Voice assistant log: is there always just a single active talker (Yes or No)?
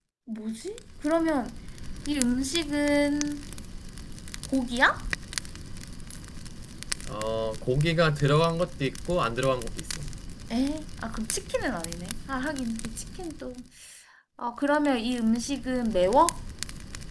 Yes